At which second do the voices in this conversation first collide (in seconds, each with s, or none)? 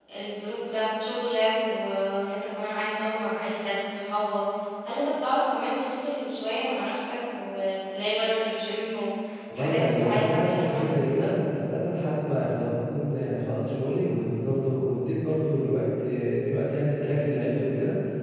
9.5 s